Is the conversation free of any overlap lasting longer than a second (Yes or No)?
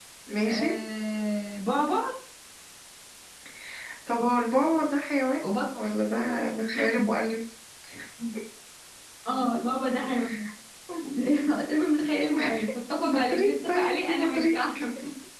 No